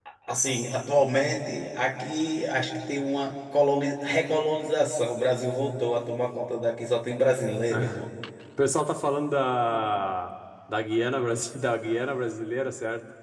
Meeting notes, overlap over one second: none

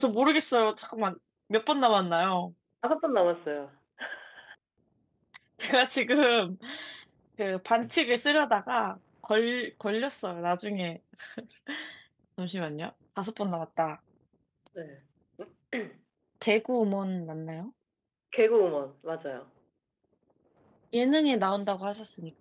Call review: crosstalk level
none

